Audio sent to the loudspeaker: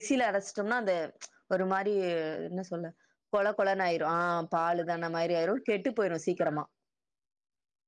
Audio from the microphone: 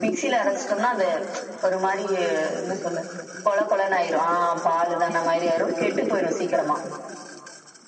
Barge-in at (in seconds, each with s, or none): none